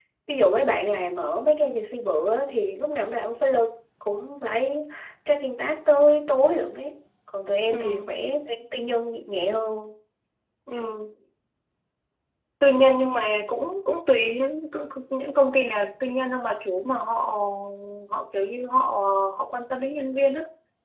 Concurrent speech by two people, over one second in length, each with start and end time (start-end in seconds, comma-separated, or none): none